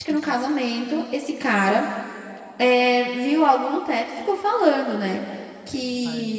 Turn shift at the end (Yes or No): No